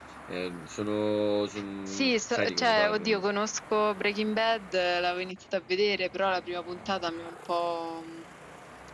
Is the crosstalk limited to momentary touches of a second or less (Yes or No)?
No